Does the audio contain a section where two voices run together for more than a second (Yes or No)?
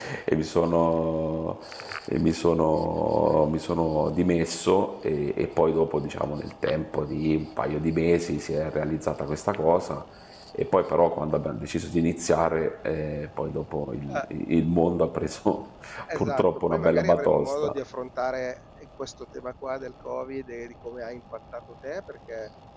Yes